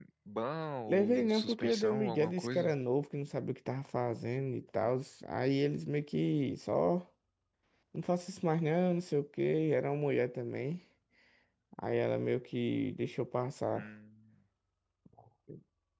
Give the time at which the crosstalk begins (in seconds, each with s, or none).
0.9 s